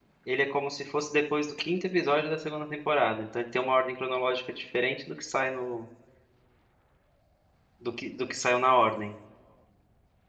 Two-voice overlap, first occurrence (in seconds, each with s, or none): none